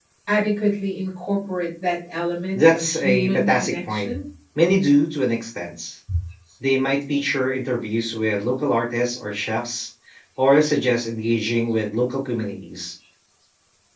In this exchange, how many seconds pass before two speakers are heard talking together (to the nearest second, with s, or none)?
3 s